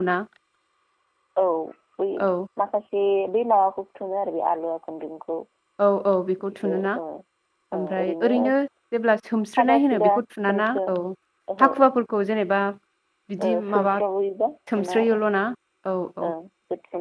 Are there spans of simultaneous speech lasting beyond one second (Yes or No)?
Yes